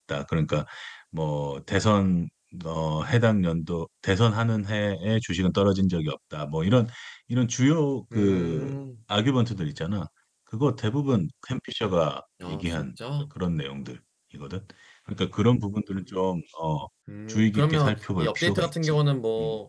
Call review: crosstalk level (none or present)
present